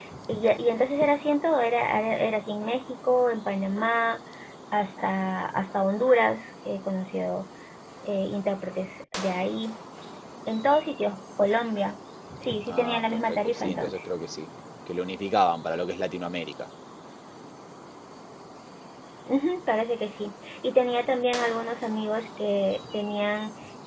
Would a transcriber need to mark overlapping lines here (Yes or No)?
Yes